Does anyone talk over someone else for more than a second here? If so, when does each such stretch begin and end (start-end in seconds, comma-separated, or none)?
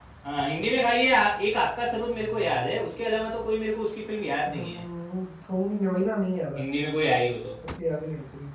none